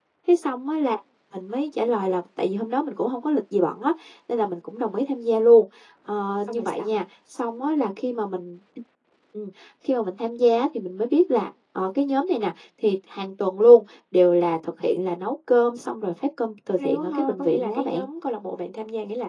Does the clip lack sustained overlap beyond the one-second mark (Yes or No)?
No